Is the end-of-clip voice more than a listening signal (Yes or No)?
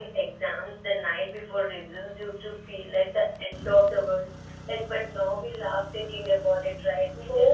Yes